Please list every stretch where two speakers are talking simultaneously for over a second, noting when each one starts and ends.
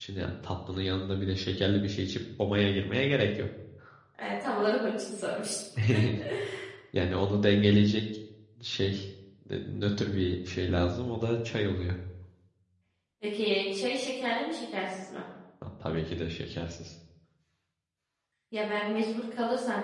none

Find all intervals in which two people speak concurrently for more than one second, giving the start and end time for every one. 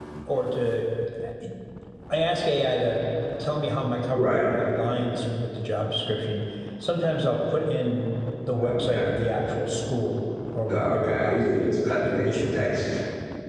10.7-12.8

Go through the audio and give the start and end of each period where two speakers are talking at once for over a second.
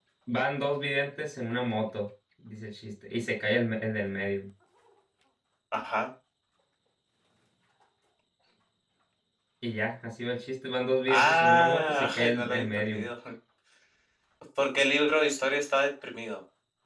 11.1-13.0

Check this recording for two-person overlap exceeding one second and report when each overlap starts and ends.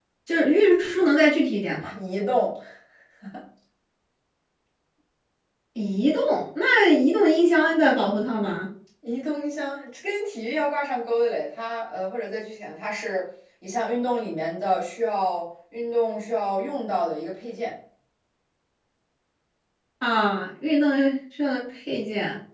none

